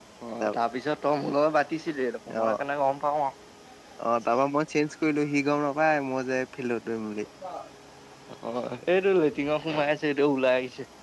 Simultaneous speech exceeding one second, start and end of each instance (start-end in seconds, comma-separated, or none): none